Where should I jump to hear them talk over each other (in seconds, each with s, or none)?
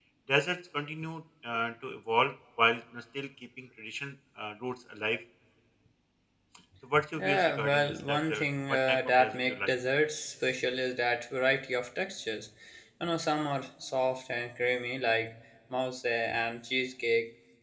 7.2 s